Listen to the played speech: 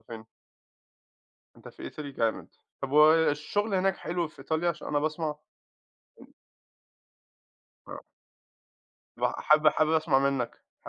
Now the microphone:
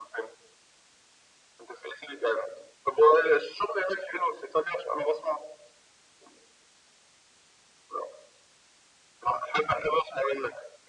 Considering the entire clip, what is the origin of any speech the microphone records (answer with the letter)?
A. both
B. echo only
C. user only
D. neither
B